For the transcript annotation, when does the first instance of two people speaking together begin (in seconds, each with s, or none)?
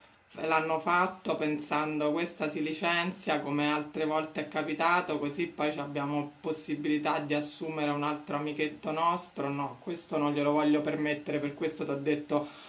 none